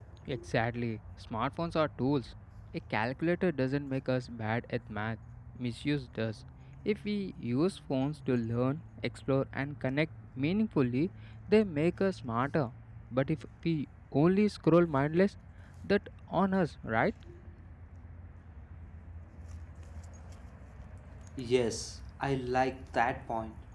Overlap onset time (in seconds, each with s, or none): none